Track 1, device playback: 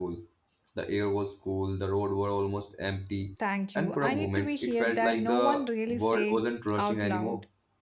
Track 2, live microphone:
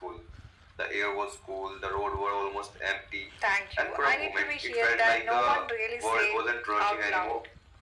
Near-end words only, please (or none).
none